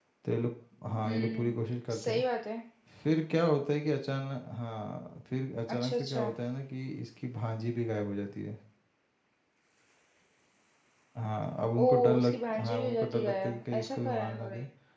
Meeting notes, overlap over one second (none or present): present